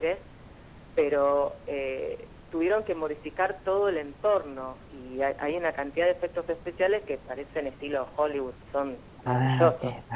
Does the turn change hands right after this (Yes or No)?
Yes